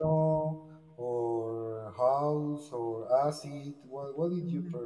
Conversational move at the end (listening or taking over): taking over